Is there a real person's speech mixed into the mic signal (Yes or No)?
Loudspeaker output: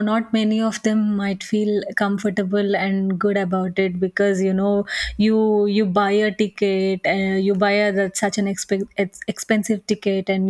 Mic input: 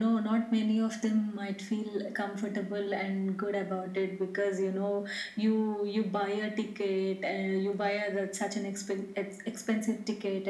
No